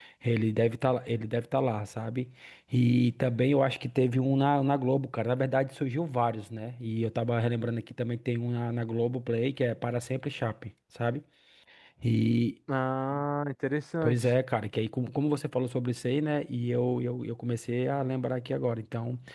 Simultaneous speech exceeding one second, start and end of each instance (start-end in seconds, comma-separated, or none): none